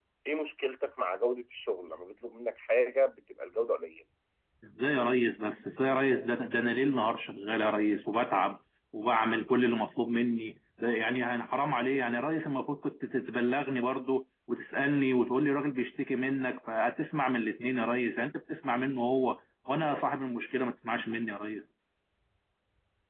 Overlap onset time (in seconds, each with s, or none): none